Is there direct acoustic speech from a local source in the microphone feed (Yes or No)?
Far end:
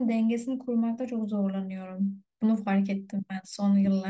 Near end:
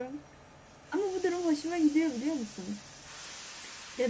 Yes